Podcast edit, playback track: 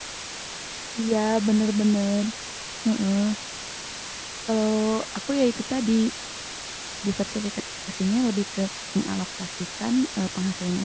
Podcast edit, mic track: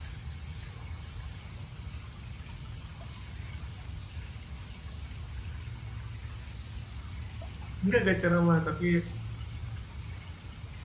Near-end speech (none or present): present